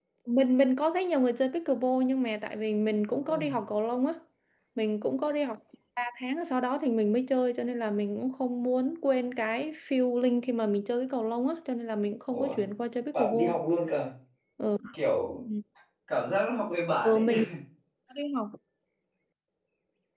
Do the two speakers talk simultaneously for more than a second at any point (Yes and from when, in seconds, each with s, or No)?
No